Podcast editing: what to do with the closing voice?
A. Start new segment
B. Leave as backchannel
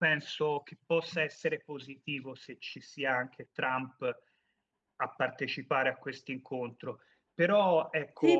A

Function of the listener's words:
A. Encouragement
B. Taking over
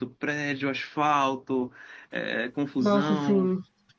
A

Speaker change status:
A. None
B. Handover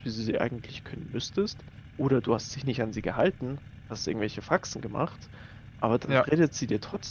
A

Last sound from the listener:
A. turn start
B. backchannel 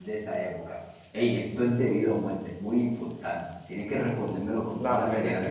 A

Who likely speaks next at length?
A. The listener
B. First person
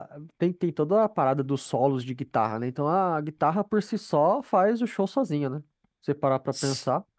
A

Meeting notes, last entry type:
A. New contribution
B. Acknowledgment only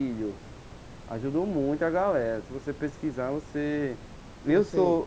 B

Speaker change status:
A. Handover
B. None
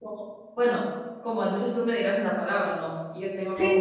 B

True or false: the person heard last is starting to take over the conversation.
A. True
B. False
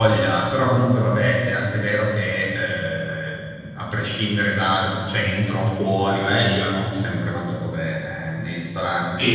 B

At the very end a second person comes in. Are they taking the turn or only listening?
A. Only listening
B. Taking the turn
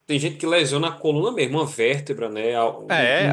B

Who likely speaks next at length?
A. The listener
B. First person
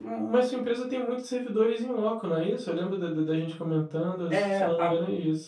A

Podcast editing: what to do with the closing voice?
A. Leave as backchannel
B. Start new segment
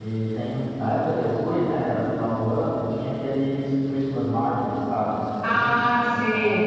B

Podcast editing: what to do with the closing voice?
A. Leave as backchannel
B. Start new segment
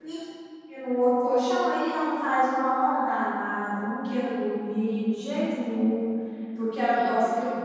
A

